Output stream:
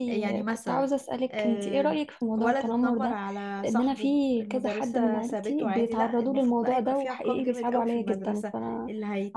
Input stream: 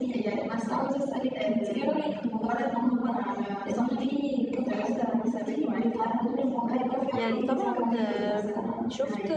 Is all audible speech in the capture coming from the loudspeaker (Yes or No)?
No